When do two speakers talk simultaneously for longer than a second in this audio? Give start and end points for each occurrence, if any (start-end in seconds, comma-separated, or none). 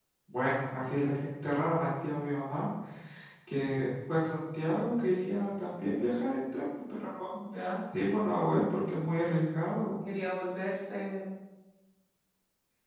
none